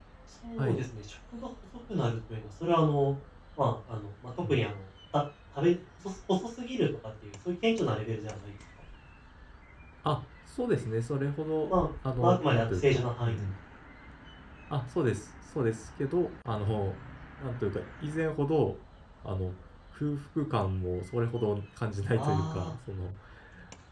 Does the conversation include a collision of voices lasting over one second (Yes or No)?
Yes